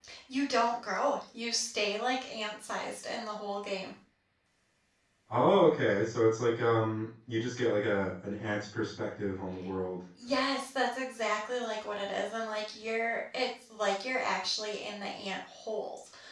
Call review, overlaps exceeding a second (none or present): none